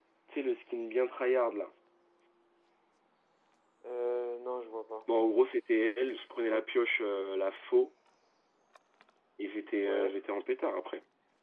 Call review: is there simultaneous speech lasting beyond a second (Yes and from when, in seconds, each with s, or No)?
No